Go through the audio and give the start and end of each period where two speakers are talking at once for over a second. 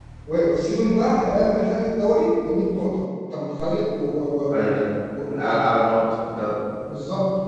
none

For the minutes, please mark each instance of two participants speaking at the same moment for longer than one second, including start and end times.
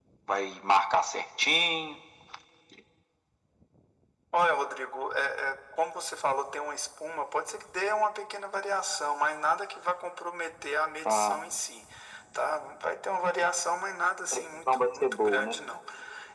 14.3-15.6

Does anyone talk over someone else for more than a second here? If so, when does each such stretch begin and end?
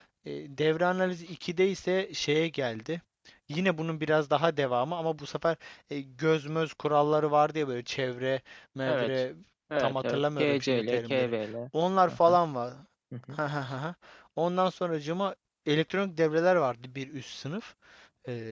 9.8-11.3

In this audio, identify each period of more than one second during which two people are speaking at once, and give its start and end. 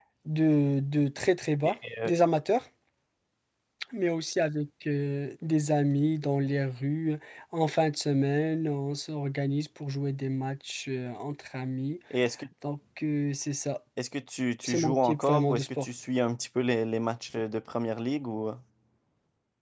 14.6-15.9

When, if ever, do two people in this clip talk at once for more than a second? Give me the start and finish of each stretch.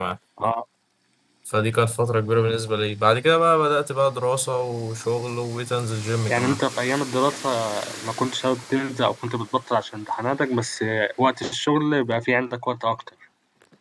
none

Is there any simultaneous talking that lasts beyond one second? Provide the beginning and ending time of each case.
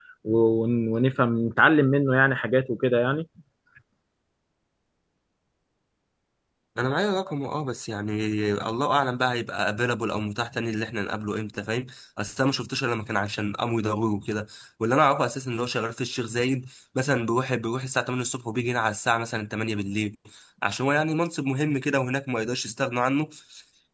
none

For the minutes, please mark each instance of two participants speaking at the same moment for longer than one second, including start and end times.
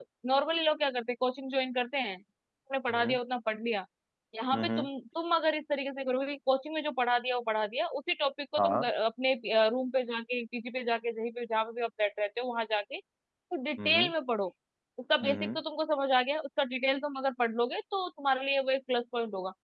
none

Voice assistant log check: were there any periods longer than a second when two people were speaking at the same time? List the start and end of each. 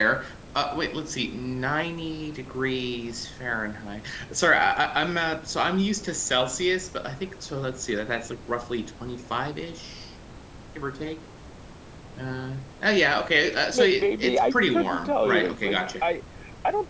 13.7-15.8

